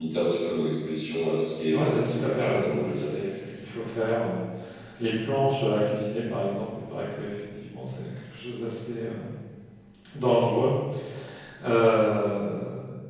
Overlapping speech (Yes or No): Yes